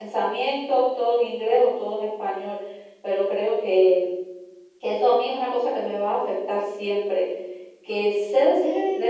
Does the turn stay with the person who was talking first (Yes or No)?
Yes